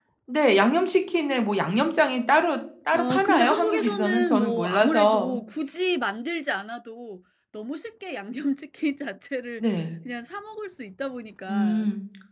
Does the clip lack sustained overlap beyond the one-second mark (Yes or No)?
No